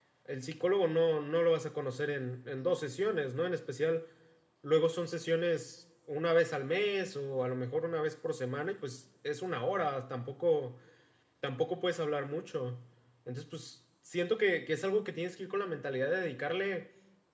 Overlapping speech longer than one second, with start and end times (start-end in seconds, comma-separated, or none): none